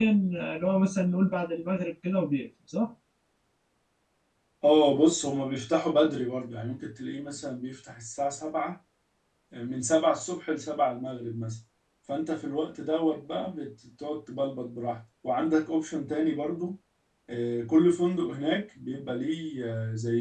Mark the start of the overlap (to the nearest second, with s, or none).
none